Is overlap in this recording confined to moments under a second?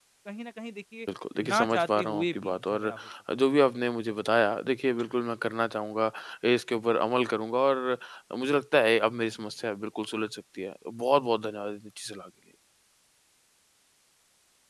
No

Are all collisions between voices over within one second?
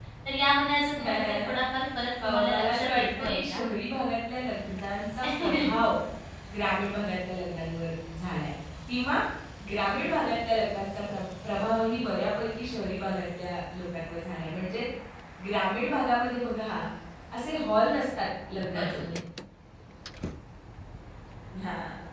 No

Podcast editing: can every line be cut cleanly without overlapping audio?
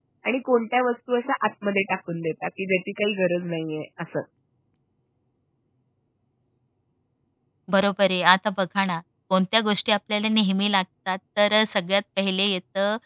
Yes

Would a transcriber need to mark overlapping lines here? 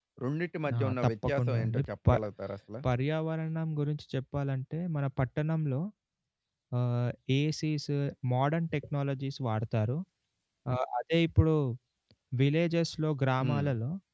Yes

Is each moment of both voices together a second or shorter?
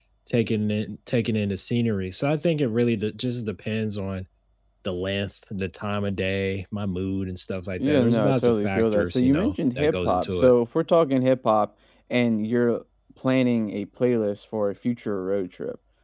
No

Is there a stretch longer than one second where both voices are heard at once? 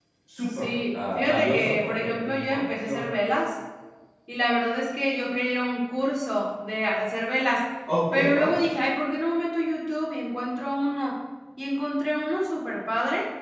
Yes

